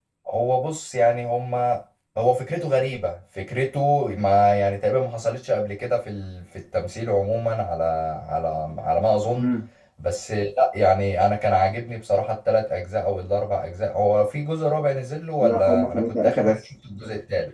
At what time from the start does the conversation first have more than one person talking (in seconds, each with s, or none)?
15.4 s